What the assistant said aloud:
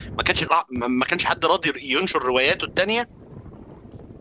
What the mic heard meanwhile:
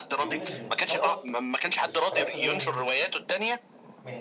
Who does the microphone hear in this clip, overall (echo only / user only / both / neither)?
both